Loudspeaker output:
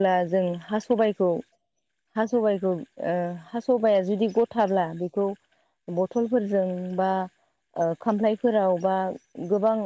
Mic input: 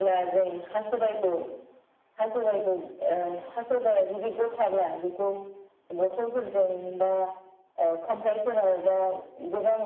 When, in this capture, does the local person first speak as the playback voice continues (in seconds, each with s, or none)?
none